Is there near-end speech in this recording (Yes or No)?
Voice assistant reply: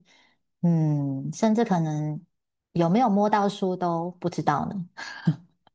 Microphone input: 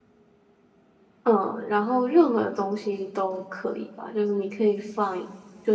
Yes